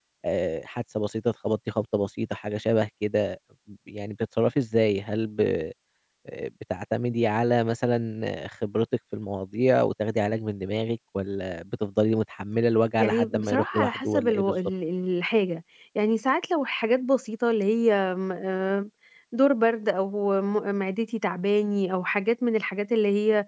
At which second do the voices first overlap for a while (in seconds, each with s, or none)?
13.0 s